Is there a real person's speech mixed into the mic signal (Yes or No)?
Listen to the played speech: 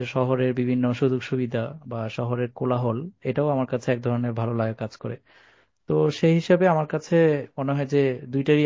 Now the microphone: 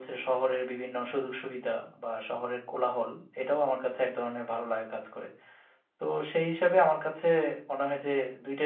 No